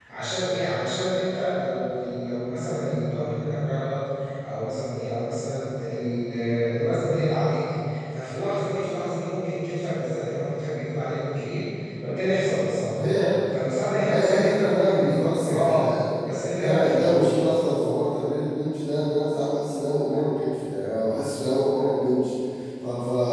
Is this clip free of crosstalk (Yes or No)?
No